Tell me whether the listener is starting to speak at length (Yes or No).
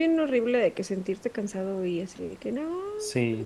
Yes